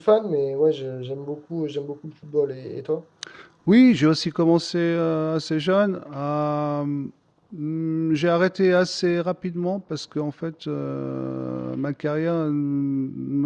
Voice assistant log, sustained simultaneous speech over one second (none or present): none